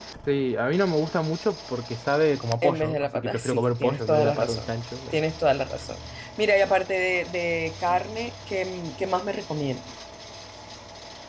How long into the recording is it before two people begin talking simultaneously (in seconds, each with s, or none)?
2.6 s